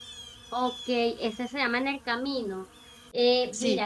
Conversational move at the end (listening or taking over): listening